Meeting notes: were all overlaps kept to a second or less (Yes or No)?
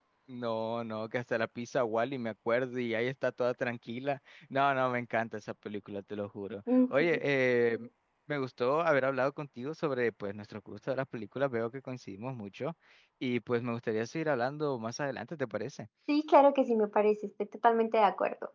Yes